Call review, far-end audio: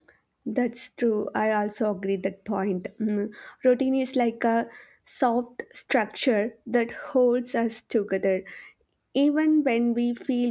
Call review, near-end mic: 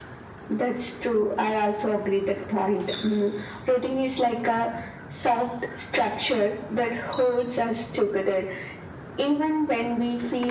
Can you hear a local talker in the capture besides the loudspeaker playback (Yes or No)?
No